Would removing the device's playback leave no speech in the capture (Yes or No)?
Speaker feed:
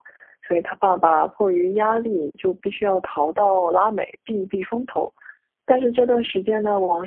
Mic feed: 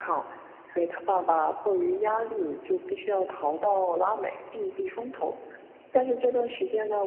Yes